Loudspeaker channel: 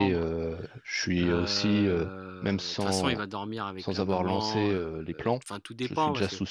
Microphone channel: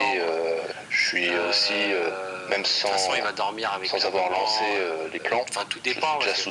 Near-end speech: none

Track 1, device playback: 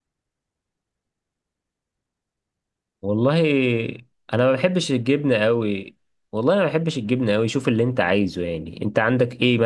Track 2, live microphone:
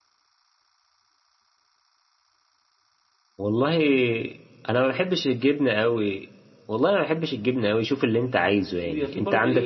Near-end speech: present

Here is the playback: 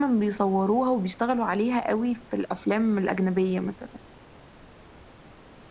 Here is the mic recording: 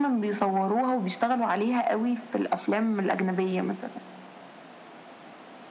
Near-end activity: none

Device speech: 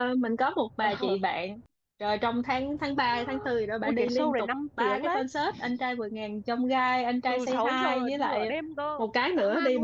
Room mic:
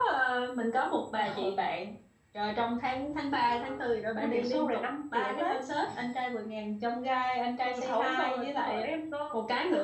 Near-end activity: none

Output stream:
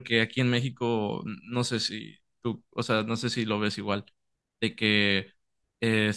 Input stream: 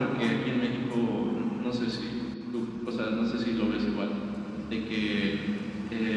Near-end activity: none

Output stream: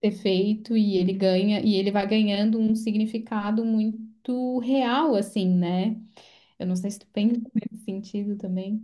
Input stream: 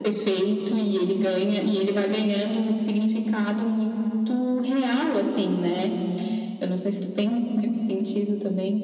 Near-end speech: none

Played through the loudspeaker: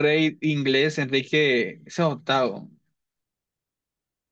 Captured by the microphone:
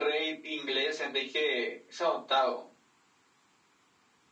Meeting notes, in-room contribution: none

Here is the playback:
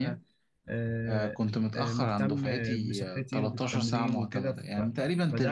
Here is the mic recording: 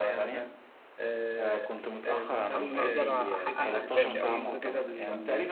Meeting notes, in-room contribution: present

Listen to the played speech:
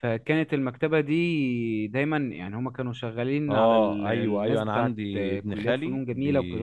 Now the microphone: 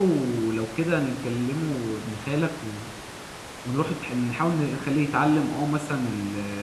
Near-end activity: present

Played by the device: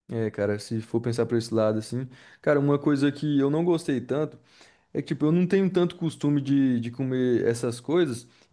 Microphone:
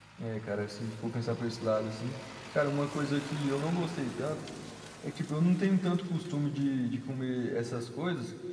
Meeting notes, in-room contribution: none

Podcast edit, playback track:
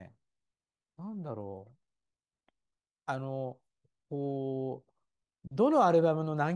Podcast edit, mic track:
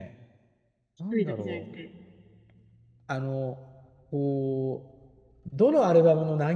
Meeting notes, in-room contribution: present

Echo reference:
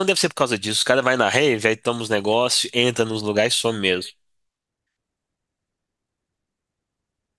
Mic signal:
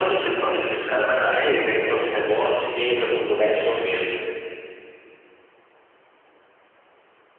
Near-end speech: none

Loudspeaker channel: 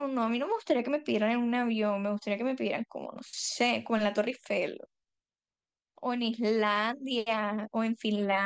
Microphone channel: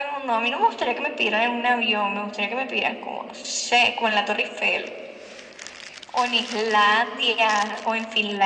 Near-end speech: none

